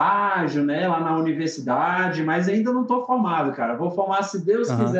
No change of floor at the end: Yes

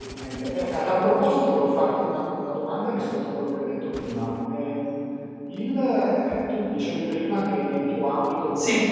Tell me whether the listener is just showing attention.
Yes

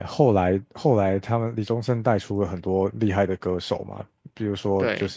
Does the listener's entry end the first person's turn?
No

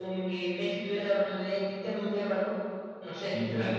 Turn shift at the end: Yes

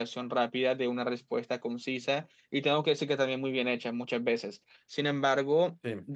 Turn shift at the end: No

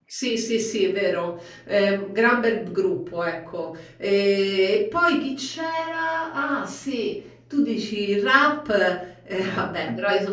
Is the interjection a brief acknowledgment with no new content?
Yes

